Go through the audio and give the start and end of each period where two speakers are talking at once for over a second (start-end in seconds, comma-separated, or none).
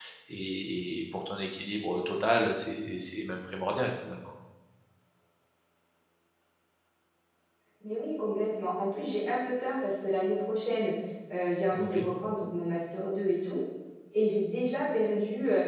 none